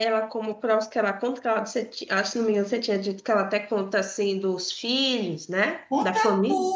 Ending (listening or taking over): taking over